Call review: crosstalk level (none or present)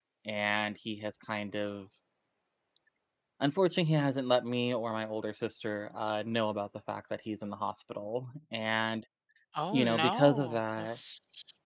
present